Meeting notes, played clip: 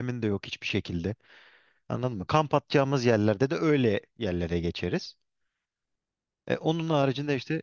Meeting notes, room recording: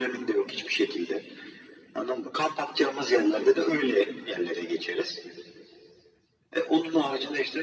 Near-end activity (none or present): none